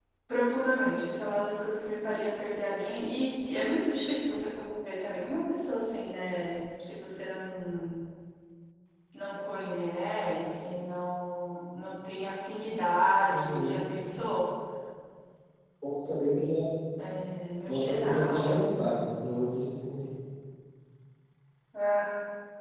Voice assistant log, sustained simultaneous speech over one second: present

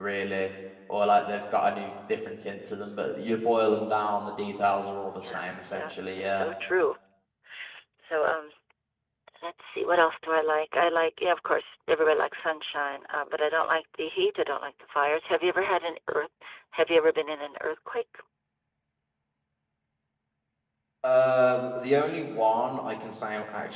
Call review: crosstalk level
present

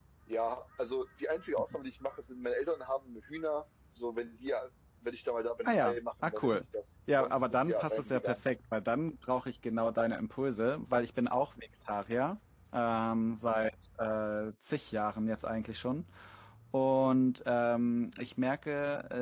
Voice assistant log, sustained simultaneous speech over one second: present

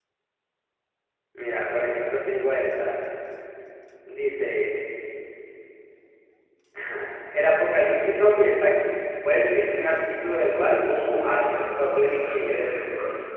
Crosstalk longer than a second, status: present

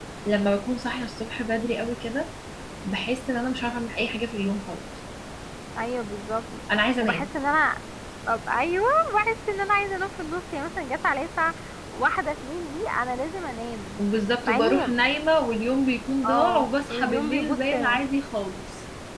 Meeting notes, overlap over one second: present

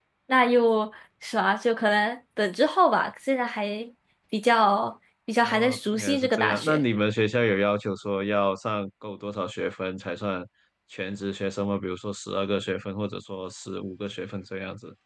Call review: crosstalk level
present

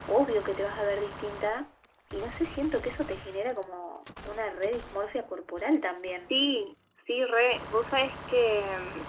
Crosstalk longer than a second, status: none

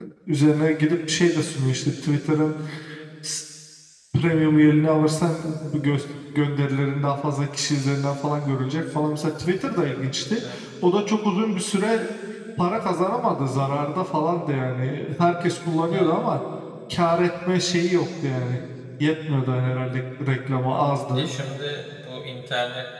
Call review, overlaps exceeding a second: none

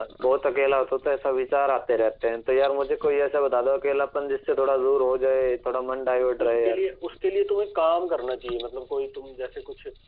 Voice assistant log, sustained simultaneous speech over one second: none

